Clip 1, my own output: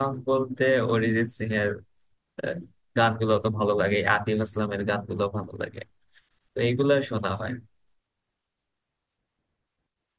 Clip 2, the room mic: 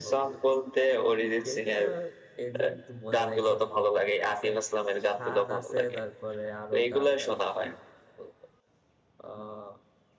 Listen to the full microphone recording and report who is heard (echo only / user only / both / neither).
both